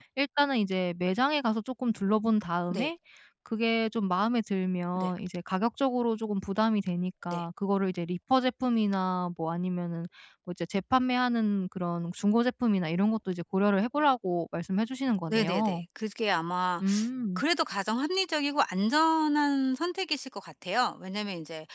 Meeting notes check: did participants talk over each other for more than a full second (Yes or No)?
No